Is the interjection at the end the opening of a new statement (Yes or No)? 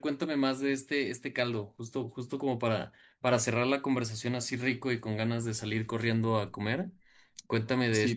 Yes